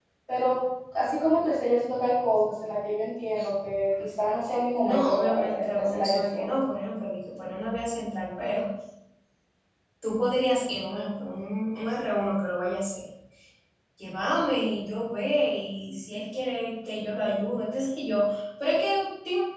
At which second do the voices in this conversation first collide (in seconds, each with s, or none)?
4.8 s